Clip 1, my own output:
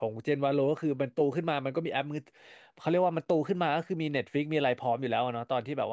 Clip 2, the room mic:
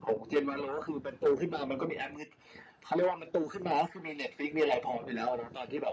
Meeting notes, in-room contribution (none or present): none